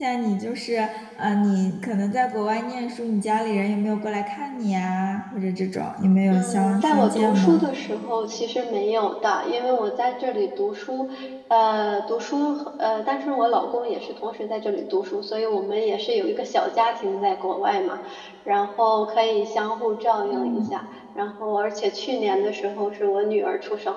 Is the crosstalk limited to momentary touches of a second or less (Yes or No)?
No